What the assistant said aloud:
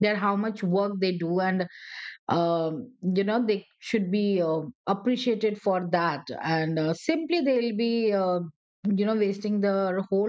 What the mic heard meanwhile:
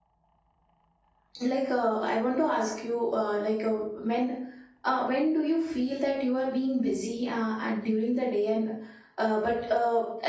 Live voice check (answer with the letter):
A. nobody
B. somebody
B